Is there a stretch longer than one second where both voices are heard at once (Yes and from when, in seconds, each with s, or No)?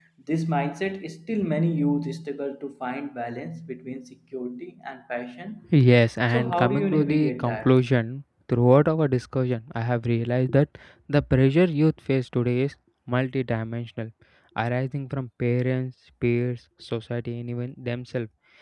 Yes, from 6.3 s